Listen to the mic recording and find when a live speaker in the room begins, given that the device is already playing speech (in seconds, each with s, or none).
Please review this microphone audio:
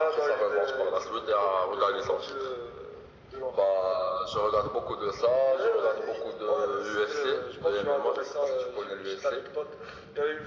none